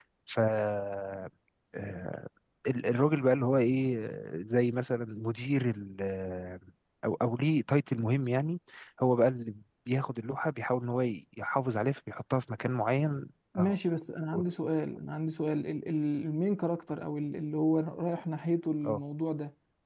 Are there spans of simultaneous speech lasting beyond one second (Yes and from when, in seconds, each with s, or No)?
No